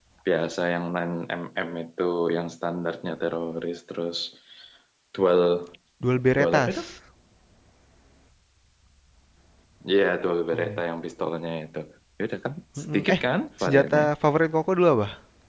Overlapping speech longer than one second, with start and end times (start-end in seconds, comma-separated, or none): none